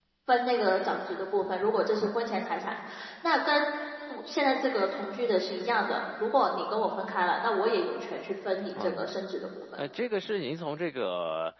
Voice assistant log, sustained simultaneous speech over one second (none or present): none